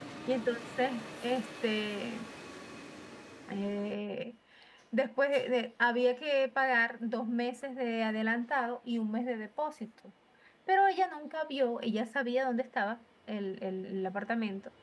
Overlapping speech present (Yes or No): No